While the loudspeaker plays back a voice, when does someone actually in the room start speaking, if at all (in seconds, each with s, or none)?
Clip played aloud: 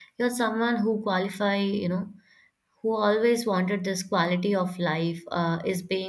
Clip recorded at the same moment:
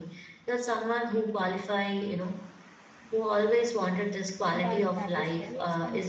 4.5 s